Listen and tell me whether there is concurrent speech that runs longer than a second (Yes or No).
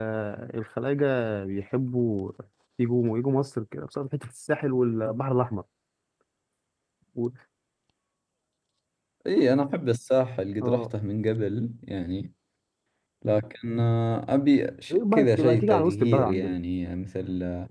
Yes